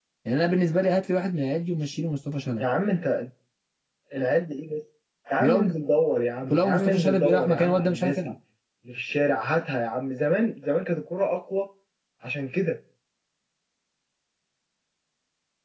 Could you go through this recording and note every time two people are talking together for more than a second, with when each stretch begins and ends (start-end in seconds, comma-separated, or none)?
6.5-8.3